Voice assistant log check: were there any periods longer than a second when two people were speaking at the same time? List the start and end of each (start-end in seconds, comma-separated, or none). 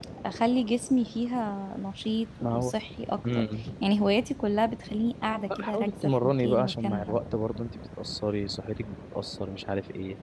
5.5-7.2